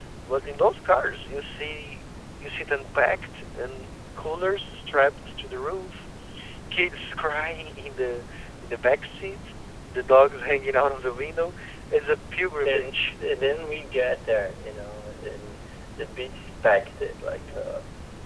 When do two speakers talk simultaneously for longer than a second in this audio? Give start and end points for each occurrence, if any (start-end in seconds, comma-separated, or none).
none